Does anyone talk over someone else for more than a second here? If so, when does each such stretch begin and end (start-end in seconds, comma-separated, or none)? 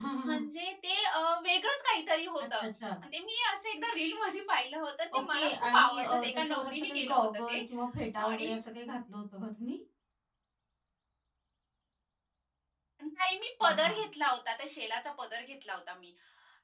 5.1-7.6